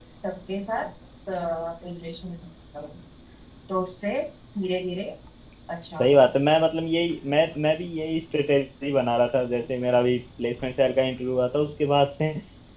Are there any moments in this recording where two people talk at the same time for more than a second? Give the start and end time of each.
none

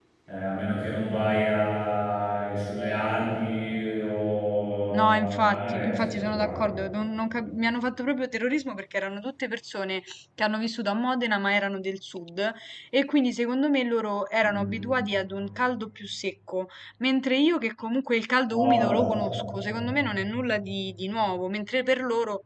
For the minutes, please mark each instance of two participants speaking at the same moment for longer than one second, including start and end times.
4.9-6.6

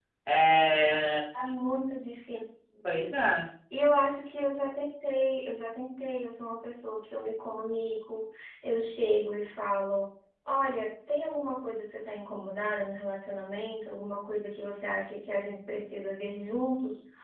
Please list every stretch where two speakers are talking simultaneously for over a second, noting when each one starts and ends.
none

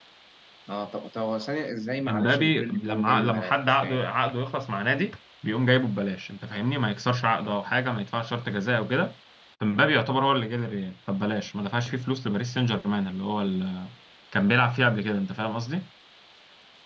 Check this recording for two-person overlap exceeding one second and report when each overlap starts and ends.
2.1-4.0

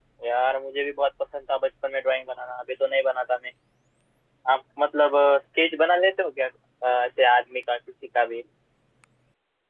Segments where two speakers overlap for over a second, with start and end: none

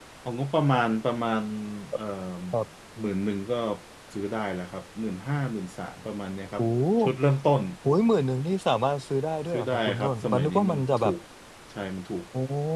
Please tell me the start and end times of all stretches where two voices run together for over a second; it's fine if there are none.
9.5-11.1

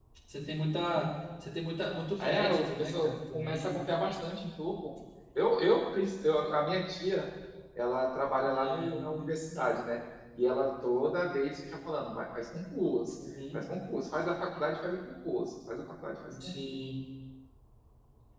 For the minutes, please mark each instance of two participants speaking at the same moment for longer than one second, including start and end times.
2.2-3.8

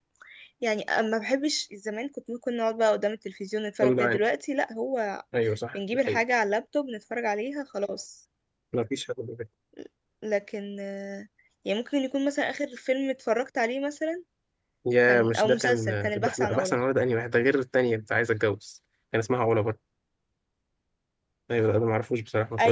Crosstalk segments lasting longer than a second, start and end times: 15.1-16.8

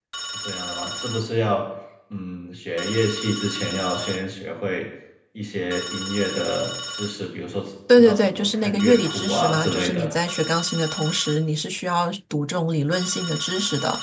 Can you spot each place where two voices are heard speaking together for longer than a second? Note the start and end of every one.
7.9-10.1

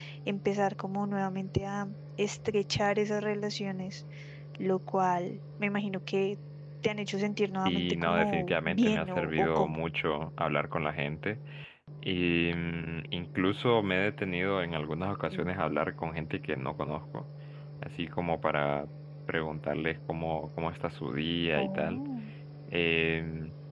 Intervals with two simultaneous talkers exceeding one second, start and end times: 7.7-9.7

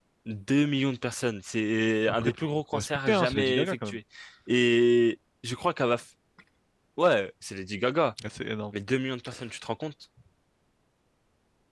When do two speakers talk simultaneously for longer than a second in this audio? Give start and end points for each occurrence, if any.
2.1-4.0

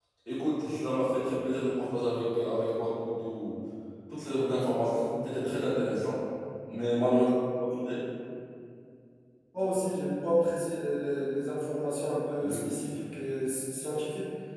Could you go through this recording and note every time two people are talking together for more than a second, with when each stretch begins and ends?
none

